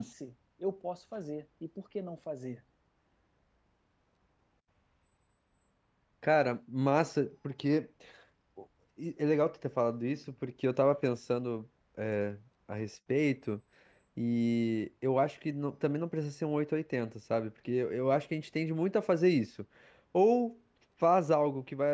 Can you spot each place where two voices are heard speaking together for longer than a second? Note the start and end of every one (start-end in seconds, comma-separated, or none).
none